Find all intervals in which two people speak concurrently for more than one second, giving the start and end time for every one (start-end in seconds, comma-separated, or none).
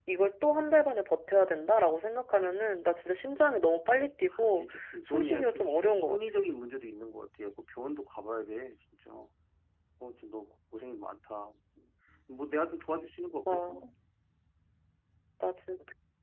4.3-6.4